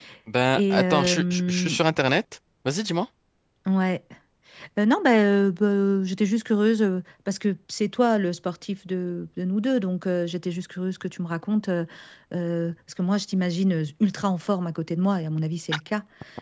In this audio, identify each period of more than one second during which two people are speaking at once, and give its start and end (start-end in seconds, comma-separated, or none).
0.6-1.8